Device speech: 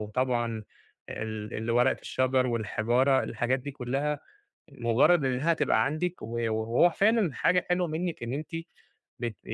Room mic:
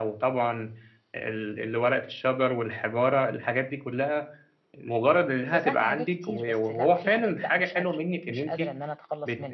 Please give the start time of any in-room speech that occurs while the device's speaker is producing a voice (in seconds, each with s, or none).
5.5 s